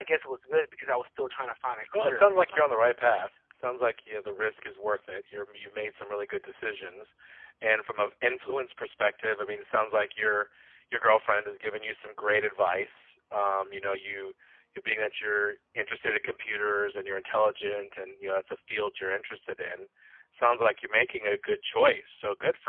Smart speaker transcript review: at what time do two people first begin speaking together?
1.9 s

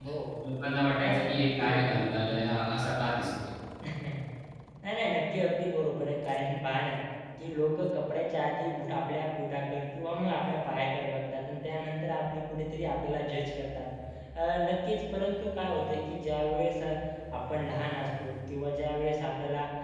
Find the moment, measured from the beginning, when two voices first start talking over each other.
1.0 s

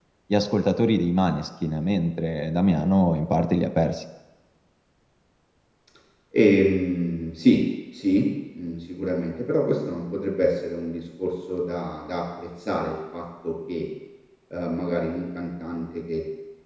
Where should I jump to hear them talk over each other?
none

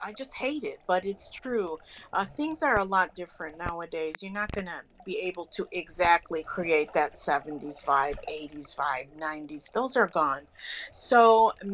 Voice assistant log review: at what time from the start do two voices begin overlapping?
none

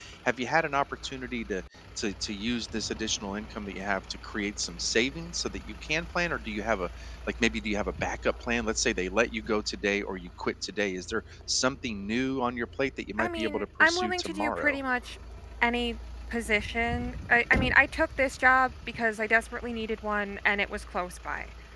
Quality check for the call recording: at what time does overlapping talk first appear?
13.2 s

